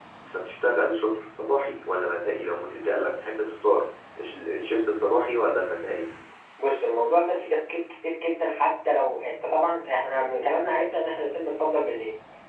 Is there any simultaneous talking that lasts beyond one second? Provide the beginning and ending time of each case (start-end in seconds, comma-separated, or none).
none